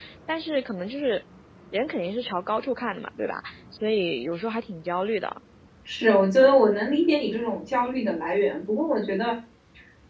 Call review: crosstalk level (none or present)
none